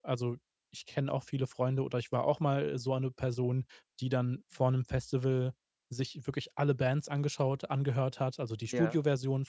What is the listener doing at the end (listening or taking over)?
listening